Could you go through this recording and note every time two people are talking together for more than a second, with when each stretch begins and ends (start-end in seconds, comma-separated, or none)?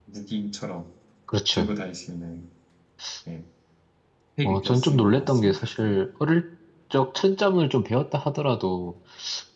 4.5-6.0